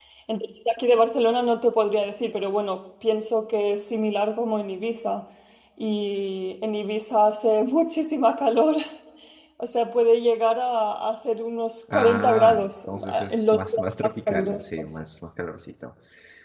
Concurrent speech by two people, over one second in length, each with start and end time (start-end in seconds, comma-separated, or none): 11.9-14.9